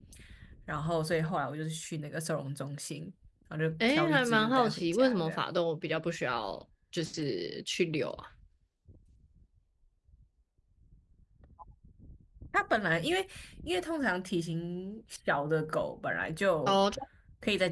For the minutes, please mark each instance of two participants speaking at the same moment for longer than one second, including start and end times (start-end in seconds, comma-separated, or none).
3.8-5.4